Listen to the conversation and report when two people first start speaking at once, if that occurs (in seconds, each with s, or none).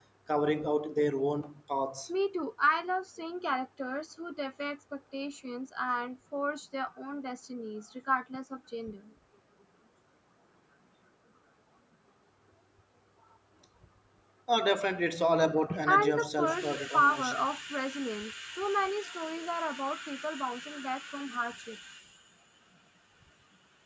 15.7 s